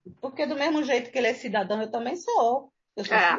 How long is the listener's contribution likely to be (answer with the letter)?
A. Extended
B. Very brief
A